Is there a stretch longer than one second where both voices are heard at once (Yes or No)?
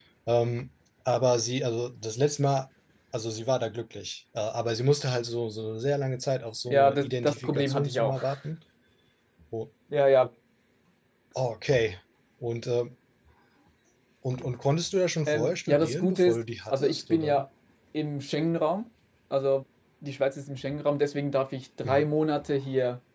Yes